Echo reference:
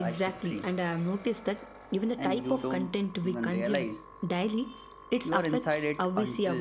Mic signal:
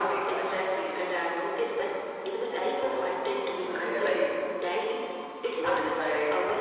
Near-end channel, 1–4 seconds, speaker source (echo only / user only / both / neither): echo only